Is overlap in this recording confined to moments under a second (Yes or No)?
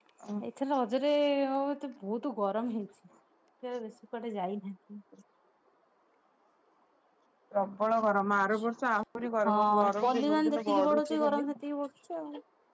No